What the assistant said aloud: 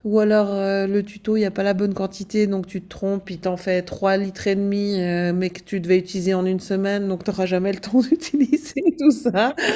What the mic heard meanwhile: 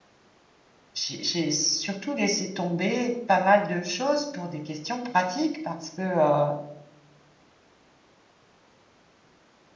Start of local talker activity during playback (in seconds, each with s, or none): 0.9 s